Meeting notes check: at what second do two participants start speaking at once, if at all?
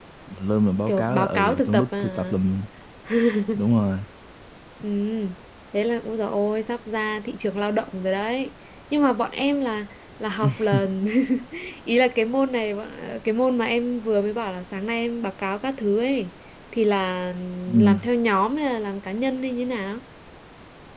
0.9 s

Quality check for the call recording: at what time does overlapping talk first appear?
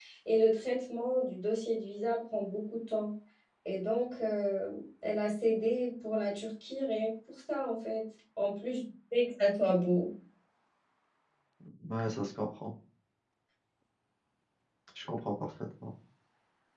none

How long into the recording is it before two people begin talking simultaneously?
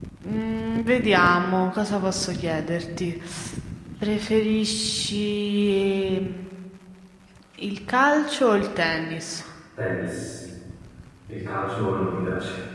none

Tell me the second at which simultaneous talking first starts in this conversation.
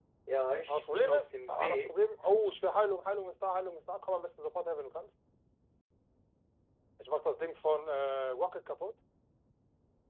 0.7 s

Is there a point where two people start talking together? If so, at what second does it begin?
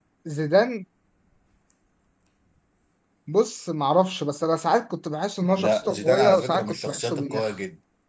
5.6 s

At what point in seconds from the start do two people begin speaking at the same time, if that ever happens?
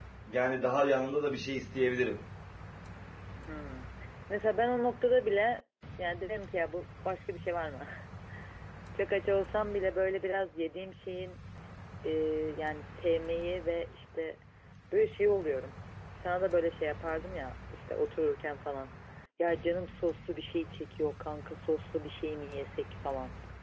none

